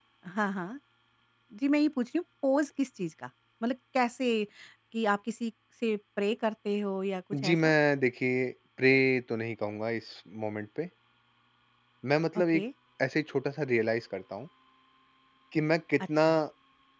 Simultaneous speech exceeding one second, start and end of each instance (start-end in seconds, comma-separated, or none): none